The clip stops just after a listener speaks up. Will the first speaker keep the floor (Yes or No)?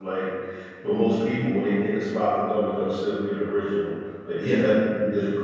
Yes